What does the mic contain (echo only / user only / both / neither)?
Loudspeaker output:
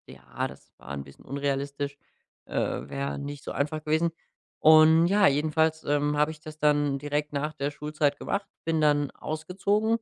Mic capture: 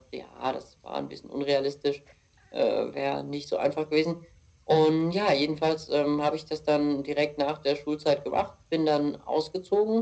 echo only